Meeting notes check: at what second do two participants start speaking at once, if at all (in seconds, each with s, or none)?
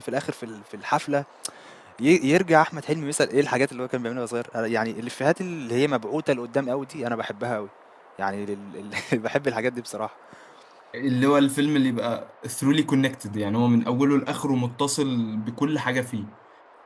none